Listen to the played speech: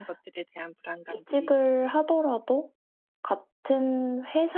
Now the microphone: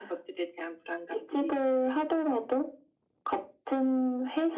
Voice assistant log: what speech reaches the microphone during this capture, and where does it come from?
echo only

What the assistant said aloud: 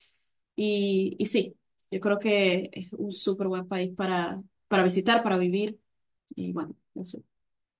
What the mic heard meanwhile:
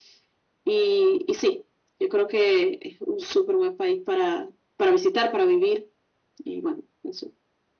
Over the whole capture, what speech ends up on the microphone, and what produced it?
echo only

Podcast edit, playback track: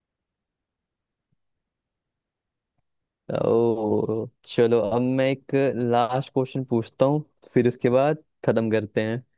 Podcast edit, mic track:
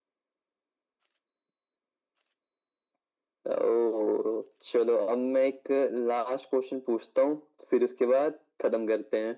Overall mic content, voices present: echo only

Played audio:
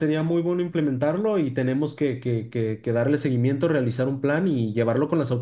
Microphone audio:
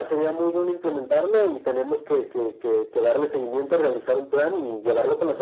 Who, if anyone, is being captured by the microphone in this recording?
echo only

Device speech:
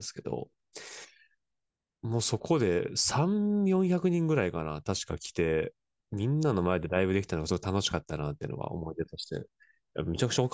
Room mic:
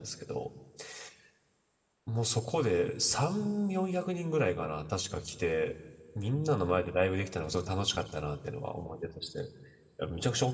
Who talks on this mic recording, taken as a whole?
echo only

